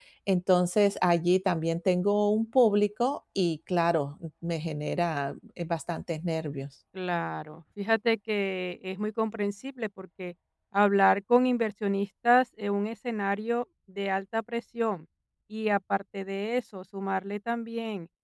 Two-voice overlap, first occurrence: none

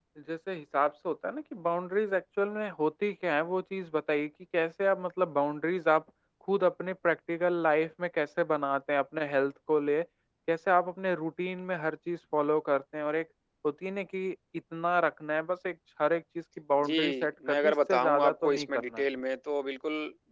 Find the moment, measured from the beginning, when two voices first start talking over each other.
16.8 s

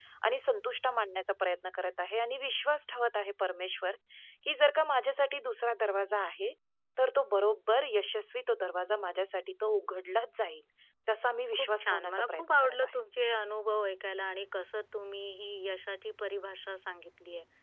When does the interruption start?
11.5 s

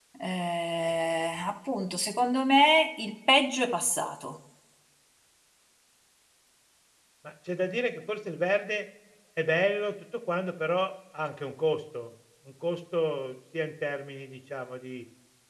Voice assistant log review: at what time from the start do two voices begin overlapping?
none

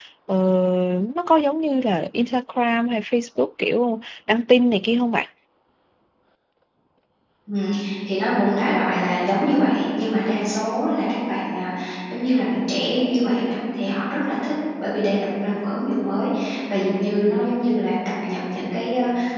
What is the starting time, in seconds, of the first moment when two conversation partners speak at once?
none

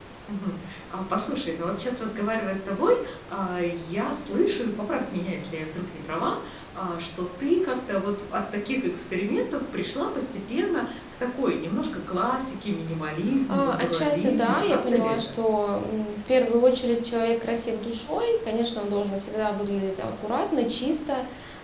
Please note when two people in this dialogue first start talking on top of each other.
13.5 s

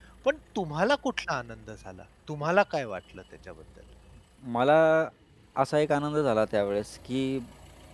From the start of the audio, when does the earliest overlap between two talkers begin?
none

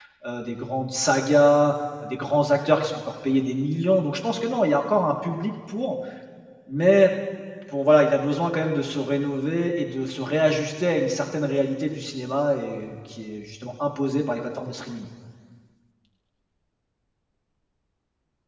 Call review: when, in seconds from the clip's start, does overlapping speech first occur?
none

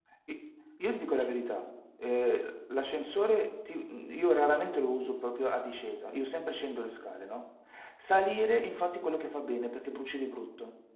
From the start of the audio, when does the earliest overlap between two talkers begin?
none

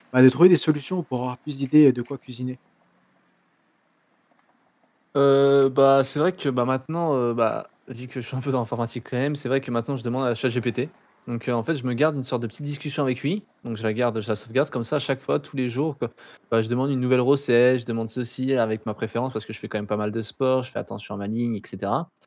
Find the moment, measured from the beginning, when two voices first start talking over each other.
none

